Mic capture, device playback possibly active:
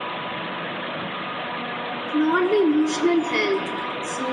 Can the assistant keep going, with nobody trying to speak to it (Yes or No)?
No